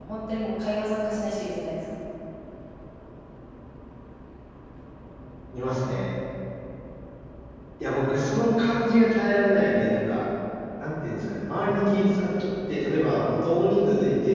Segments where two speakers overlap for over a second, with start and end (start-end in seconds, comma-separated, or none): none